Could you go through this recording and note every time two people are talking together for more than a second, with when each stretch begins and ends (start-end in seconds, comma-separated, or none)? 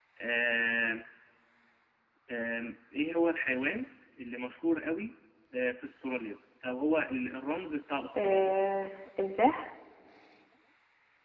none